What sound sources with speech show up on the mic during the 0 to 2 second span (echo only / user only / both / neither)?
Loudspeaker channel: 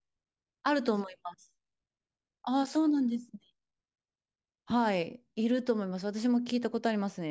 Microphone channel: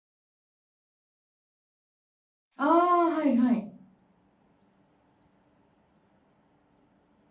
neither